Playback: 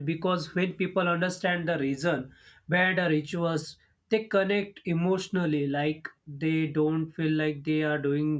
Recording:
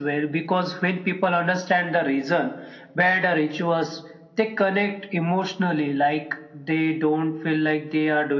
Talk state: echo only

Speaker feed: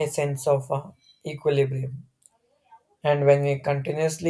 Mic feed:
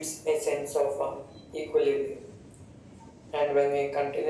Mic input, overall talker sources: echo only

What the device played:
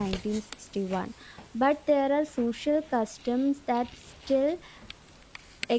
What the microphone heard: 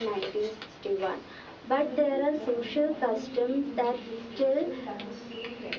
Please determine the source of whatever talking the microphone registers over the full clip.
both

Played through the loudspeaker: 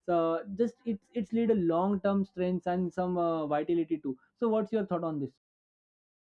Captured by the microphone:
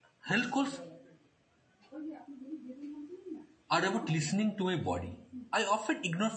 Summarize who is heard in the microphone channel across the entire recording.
user only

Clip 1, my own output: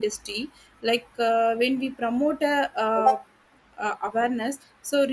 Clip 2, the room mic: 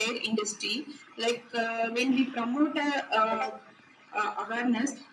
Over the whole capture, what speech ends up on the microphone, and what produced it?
echo only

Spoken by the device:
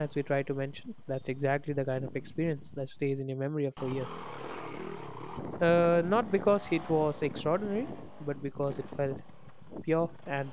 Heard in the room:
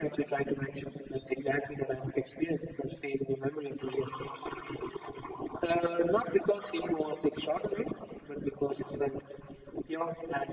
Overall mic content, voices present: echo only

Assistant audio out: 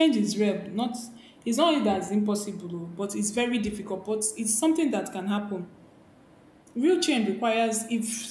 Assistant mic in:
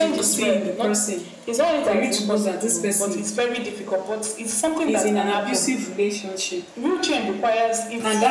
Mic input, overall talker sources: both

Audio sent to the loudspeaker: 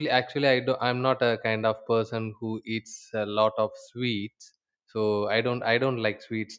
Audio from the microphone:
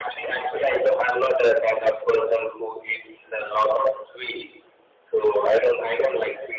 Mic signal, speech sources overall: echo only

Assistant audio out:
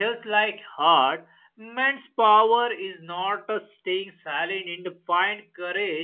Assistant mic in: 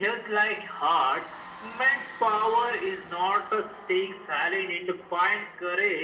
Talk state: echo only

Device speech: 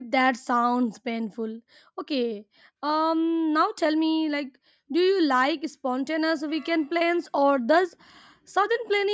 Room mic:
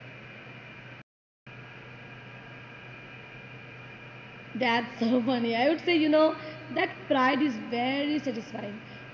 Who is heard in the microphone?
user only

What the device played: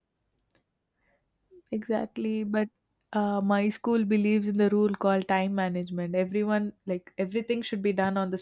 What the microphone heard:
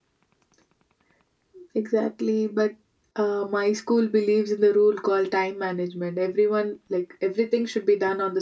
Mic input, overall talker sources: echo only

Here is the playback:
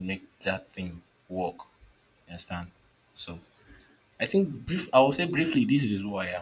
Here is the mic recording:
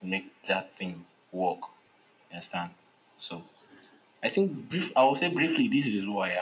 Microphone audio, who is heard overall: echo only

